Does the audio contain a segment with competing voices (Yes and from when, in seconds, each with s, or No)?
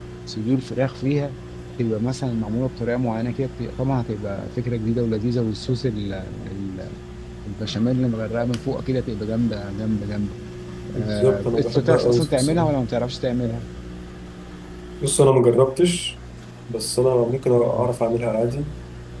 Yes, from 10.9 s